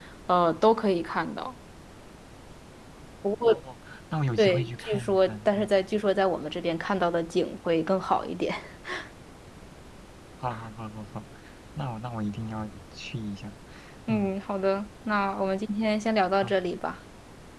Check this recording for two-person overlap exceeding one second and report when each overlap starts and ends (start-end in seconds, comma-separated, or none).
4.4-5.7